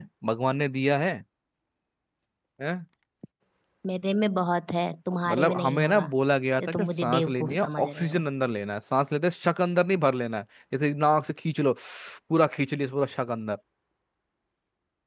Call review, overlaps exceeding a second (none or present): present